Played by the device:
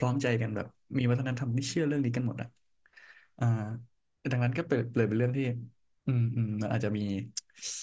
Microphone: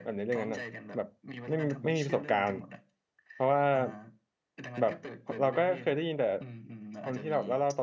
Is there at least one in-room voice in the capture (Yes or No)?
Yes